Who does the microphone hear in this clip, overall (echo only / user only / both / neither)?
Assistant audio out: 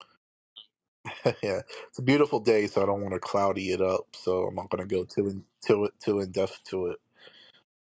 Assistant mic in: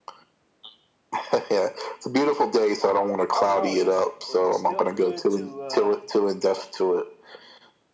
both